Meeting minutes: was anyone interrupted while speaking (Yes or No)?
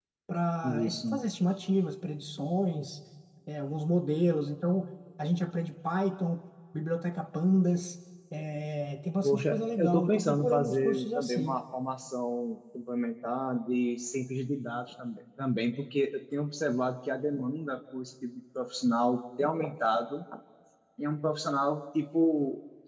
Yes